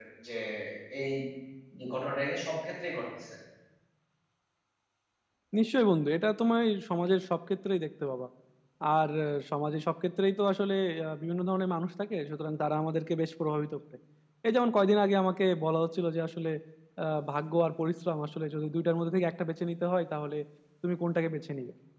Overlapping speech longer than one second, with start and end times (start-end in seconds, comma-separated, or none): none